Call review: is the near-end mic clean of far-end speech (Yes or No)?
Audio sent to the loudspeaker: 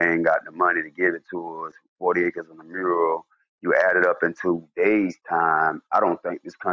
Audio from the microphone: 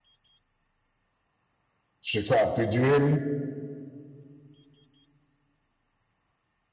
Yes